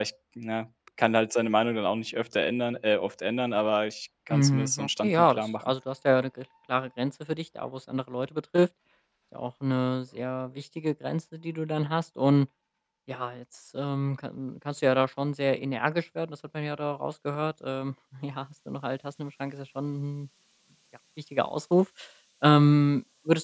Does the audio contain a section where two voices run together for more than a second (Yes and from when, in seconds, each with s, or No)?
Yes, from 4.3 s